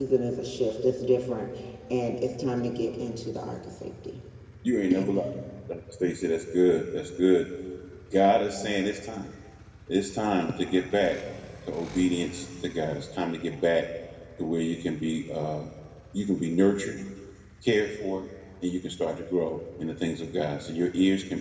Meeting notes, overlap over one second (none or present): none